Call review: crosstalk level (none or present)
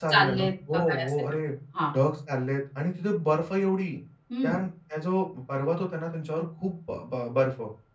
present